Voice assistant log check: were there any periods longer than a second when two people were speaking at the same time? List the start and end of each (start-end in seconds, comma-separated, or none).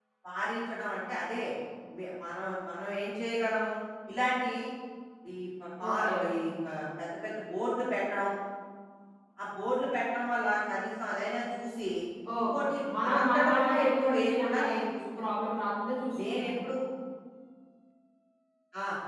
12.4-14.8